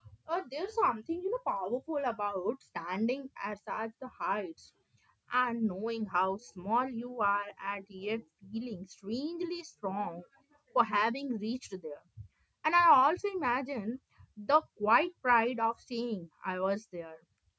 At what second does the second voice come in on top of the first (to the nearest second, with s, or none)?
none